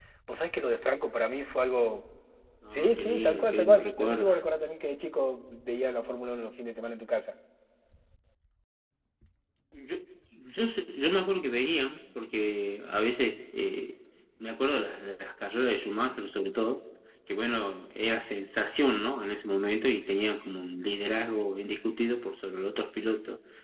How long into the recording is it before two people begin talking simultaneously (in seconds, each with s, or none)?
2.7 s